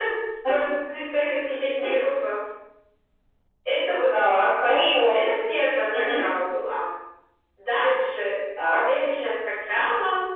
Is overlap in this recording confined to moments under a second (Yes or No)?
Yes